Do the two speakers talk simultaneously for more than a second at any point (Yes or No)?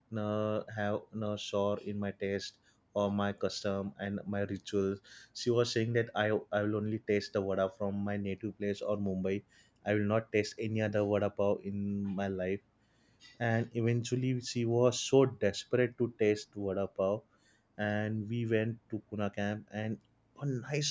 No